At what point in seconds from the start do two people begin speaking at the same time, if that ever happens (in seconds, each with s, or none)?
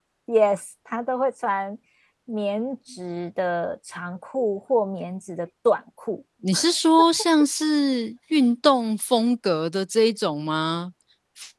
none